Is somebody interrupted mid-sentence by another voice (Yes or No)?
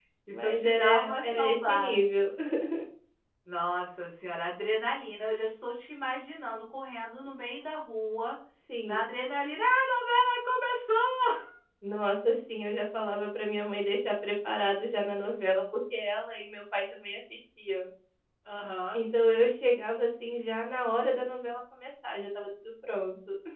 Yes